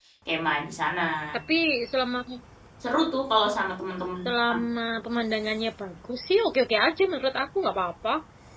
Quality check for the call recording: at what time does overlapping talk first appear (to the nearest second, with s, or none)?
none